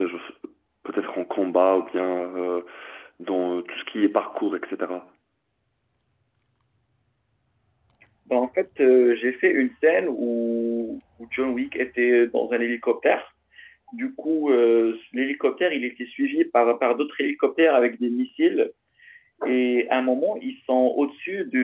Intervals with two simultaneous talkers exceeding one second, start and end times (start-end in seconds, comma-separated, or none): none